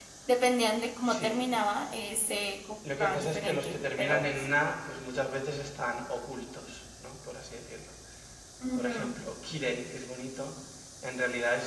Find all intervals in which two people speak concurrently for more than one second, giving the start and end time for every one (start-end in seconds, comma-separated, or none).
3.0-4.5